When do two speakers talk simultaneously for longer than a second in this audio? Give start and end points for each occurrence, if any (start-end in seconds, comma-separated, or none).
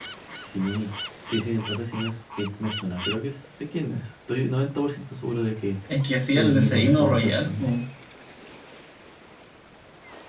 6.3-7.7